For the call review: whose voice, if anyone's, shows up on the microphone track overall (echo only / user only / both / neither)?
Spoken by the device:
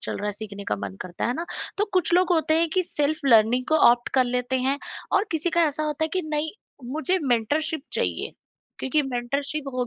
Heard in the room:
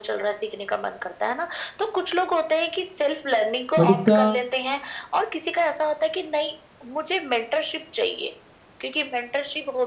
both